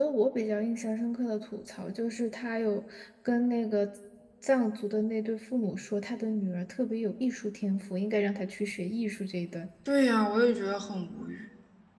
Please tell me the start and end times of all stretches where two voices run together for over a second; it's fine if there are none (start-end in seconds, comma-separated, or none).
none